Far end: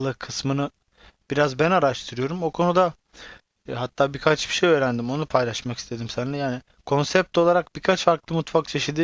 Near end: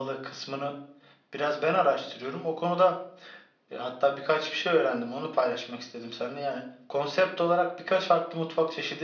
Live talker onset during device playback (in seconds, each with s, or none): none